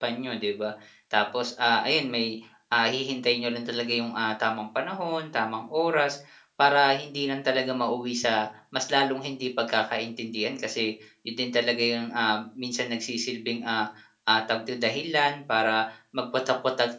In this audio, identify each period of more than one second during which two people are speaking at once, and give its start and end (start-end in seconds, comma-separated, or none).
none